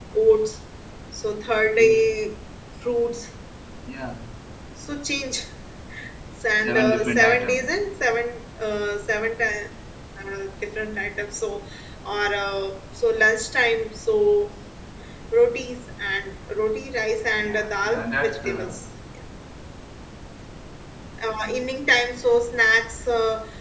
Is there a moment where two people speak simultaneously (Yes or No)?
Yes